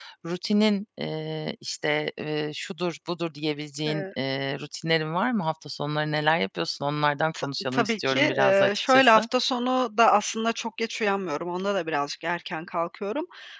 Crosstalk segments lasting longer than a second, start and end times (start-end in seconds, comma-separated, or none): 7.3-9.2